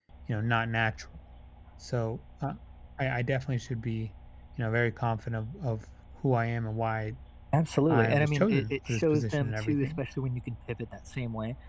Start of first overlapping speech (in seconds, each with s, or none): 7.9 s